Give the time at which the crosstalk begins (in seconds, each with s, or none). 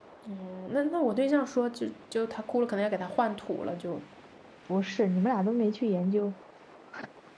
none